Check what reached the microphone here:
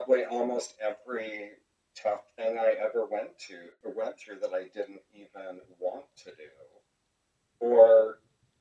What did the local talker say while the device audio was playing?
none

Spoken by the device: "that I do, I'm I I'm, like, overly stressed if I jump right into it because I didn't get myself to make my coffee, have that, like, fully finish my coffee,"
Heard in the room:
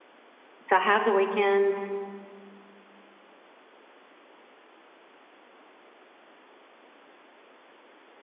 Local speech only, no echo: to have the weekend,

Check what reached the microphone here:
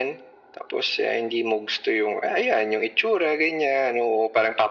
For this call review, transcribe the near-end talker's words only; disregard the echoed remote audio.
none

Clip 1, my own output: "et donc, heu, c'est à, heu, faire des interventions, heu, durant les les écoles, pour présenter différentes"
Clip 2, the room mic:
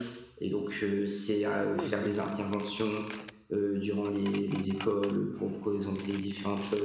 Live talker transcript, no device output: Oui, oui.

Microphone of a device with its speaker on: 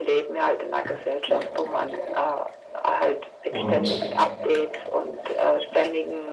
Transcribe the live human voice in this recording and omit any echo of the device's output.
und

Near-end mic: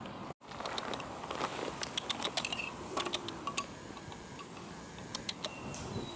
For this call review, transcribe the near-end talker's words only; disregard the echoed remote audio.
none

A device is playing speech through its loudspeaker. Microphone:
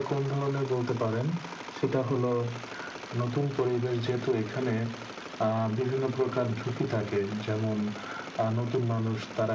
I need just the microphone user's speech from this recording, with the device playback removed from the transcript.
none

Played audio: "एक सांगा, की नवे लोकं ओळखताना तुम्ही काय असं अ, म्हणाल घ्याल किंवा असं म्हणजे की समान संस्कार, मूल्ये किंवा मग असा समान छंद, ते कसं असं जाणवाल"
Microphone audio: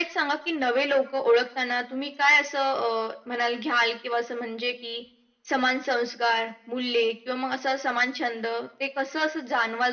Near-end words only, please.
none

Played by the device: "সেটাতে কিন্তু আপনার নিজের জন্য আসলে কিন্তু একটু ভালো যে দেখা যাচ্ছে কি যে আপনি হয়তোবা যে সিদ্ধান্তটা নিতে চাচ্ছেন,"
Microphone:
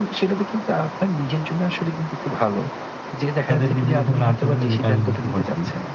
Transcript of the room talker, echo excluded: তাদের বিভিন্ন ধরনের আচরণে যেটা আমি বুঝতে পারছি।

